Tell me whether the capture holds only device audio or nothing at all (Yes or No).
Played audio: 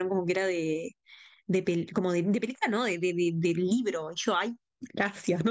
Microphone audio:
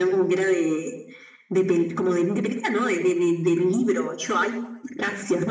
Yes